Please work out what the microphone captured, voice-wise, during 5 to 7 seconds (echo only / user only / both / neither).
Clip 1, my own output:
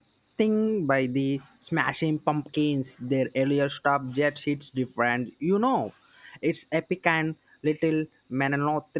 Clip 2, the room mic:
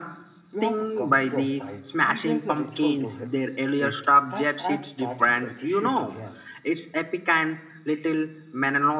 both